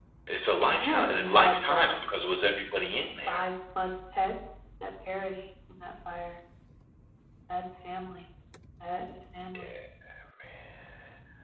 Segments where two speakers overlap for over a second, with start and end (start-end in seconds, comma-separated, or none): 0.6-1.9